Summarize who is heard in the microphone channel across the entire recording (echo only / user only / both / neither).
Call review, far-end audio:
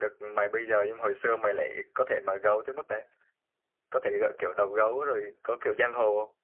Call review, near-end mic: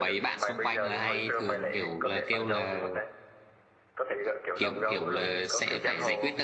both